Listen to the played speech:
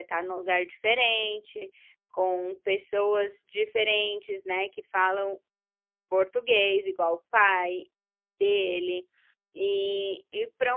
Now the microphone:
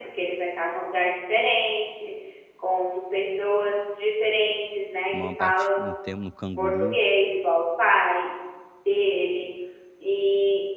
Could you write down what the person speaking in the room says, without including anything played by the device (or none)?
a maior parte no tempo no canguru.